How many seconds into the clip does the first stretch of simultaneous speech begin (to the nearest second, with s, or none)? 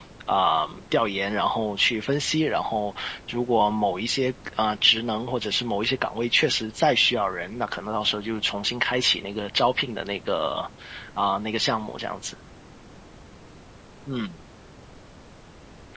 none